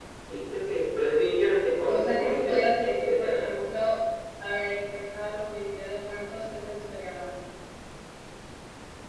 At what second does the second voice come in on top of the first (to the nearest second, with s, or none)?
2 s